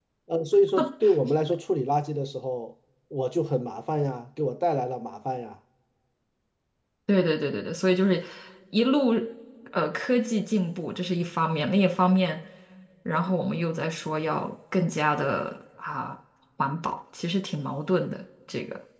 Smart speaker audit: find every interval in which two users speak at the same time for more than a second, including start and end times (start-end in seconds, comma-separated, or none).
none